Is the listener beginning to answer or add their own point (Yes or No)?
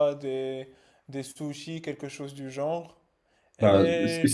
Yes